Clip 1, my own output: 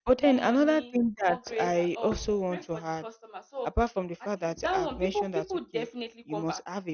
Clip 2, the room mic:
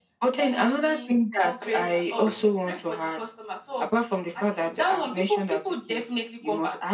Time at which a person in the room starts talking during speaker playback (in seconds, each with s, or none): none